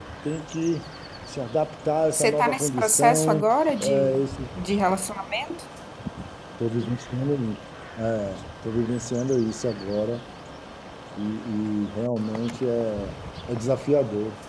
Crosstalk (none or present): present